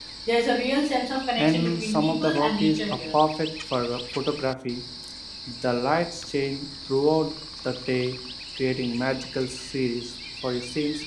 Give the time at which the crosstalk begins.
1.4 s

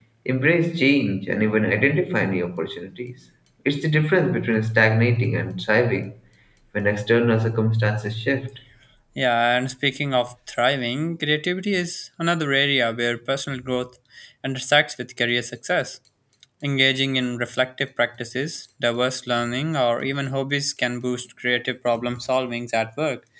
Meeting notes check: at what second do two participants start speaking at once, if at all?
none

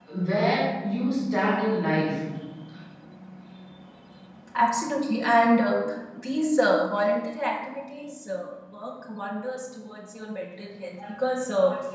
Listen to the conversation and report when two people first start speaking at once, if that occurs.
none

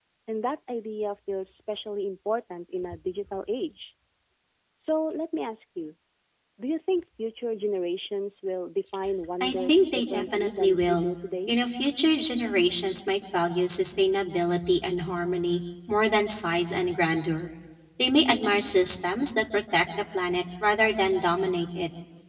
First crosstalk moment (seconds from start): 9.4 s

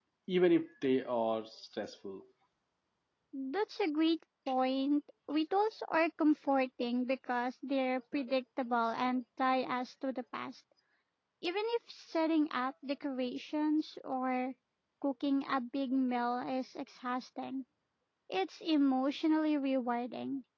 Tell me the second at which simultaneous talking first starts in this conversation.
none

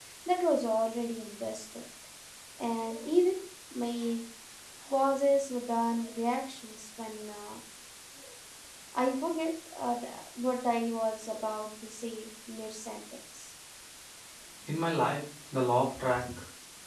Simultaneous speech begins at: none

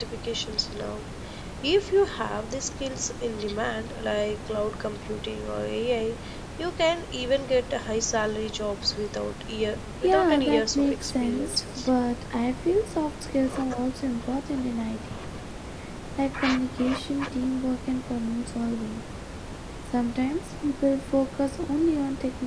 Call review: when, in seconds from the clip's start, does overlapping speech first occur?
10.0 s

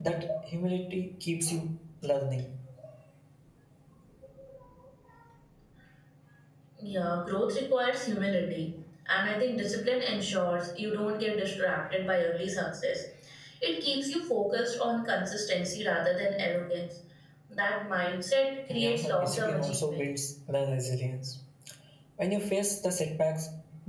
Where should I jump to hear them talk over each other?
18.7 s

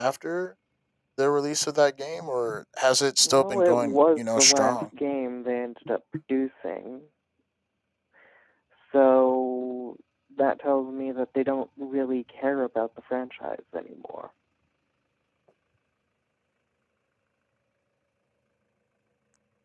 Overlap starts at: 3.2 s

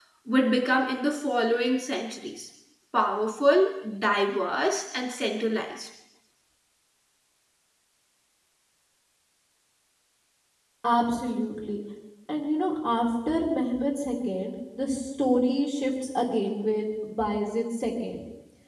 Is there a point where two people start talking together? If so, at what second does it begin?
none

